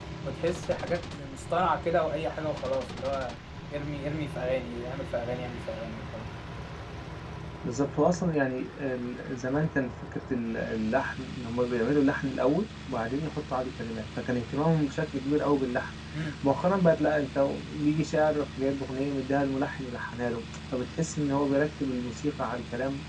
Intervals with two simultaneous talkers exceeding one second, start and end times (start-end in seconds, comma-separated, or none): none